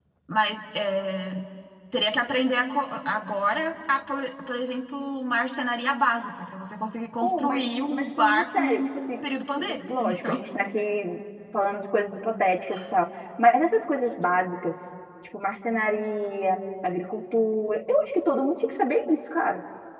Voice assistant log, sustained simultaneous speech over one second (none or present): present